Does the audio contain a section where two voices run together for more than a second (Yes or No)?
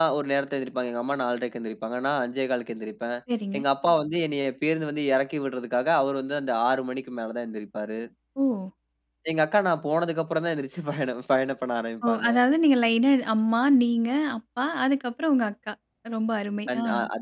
No